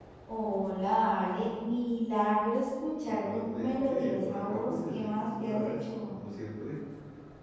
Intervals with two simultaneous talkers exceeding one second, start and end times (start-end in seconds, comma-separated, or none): 3.0-6.1